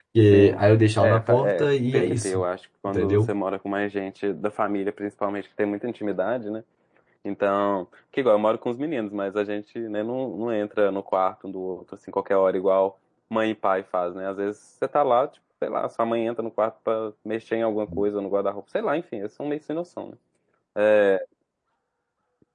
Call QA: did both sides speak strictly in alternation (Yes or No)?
No